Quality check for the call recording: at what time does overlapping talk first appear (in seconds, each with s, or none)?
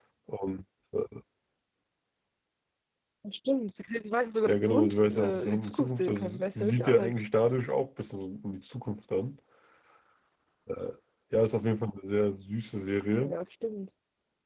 4.5 s